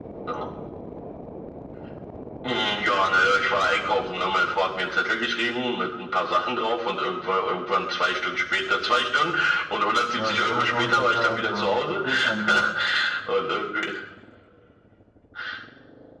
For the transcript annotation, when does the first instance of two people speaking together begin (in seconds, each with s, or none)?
10.1 s